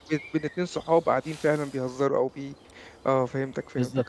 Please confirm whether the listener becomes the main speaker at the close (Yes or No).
Yes